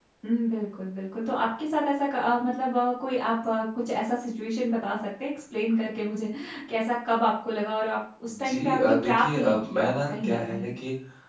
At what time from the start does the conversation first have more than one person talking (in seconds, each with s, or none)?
8.2 s